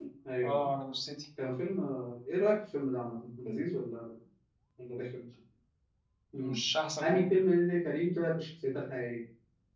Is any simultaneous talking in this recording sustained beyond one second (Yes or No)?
No